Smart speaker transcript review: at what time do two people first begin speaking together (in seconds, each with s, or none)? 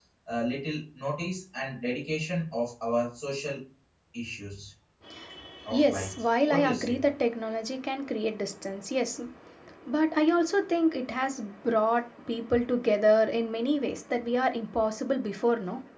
5.7 s